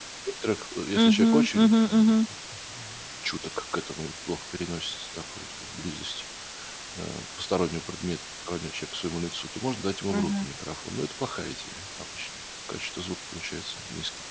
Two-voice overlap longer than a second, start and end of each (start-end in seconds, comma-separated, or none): 0.9-2.1